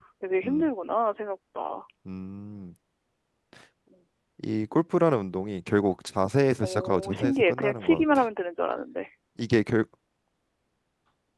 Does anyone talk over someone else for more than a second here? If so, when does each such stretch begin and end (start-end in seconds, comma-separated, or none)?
6.6-8.2